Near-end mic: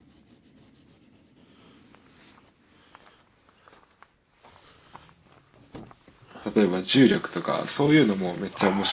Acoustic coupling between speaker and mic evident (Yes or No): No